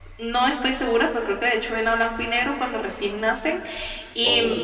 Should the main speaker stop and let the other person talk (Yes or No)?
No